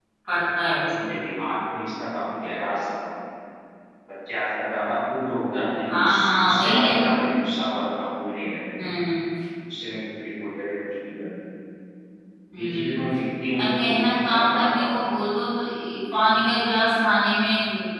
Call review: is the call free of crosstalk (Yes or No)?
No